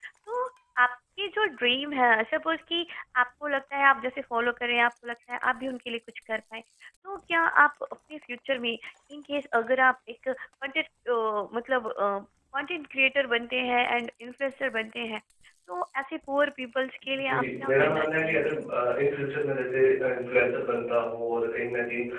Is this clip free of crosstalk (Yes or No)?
No